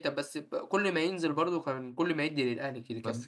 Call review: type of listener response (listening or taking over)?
taking over